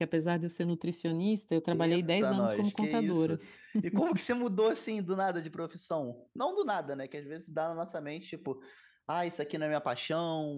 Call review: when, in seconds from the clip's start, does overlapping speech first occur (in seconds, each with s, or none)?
1.7 s